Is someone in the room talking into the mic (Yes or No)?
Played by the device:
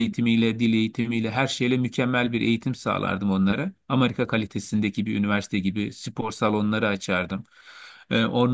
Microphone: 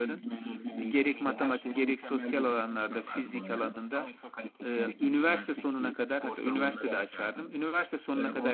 Yes